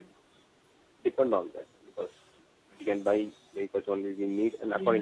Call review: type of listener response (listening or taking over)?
listening